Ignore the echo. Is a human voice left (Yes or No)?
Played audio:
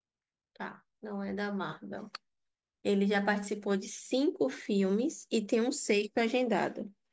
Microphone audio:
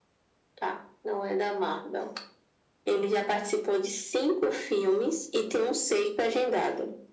No